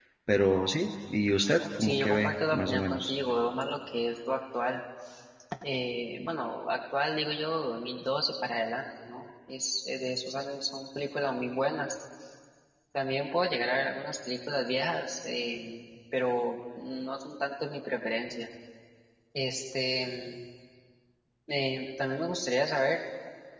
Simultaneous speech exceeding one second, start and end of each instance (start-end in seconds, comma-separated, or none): 1.8-3.1